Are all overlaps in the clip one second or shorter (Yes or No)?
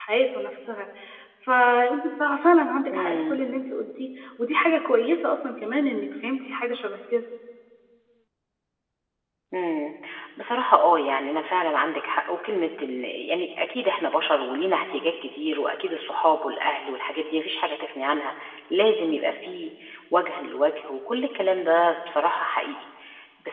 Yes